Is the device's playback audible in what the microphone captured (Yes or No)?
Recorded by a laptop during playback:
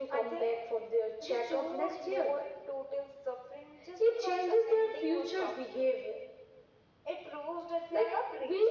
Yes